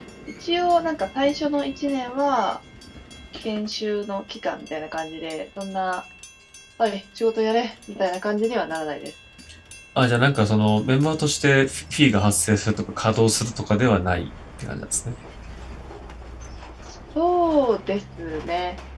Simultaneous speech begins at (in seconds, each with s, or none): none